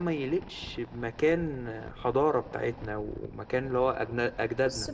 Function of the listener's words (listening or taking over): taking over